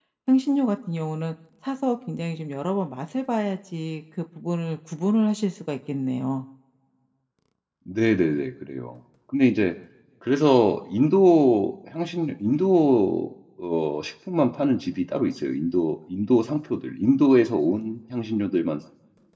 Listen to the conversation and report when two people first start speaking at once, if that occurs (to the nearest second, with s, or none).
none